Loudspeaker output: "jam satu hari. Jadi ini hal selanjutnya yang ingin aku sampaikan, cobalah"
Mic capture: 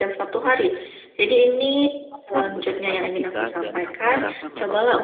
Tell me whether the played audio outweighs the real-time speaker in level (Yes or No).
Yes